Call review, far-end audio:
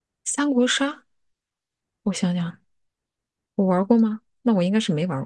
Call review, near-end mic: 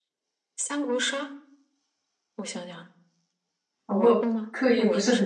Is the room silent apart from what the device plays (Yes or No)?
No